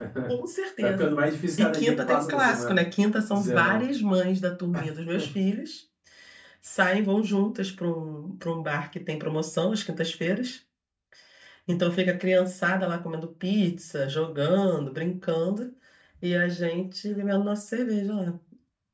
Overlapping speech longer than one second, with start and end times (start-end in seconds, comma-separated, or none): 1.6-2.8